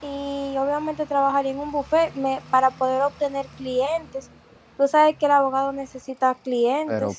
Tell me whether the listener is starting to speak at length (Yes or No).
Yes